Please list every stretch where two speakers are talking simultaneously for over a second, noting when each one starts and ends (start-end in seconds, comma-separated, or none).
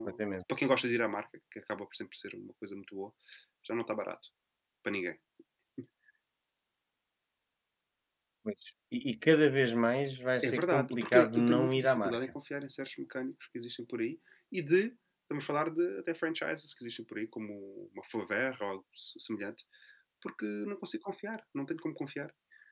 10.4-12.2